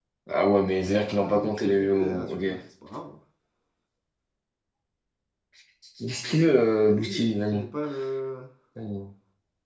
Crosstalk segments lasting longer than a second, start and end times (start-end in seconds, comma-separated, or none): 0.7-2.4, 6.2-7.6